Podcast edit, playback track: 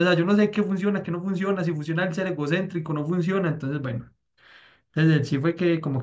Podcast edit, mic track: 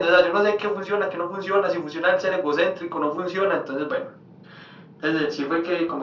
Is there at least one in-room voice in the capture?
No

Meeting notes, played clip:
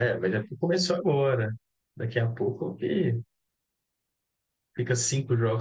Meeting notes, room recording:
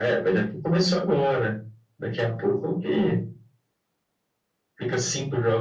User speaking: No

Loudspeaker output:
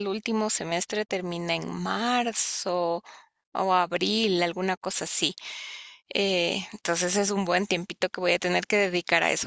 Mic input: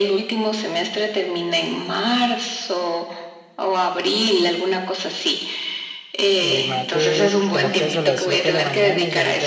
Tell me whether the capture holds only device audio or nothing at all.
No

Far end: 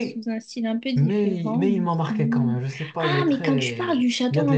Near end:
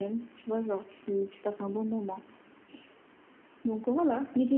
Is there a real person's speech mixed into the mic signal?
Yes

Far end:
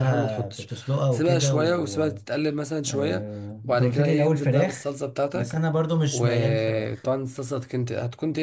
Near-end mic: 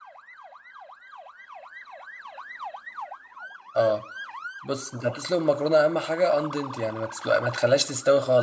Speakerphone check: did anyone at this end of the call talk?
Yes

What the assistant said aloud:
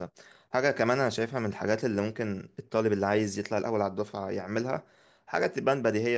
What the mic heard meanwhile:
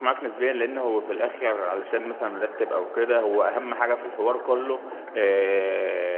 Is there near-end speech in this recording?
Yes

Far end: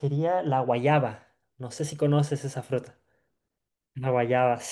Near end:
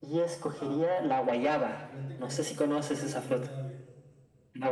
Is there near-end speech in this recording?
Yes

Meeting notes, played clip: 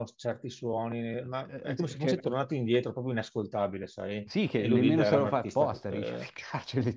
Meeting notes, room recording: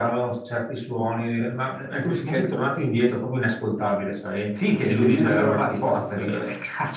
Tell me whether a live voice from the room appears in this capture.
No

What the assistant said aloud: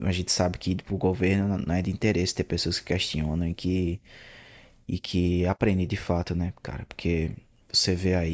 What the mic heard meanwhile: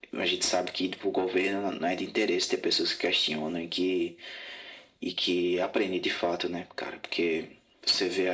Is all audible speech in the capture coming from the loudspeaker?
Yes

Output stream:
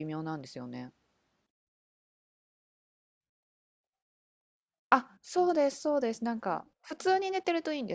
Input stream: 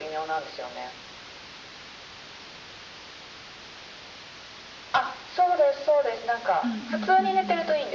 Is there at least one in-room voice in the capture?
Yes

